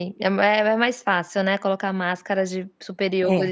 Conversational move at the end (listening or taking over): listening